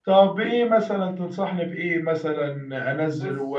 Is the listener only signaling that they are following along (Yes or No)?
Yes